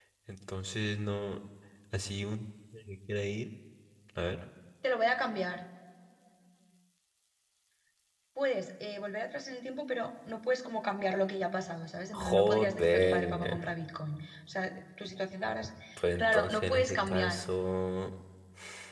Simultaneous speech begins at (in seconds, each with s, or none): 12.1 s